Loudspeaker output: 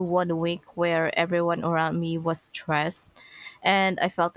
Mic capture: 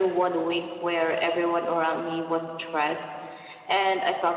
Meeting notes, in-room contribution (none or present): none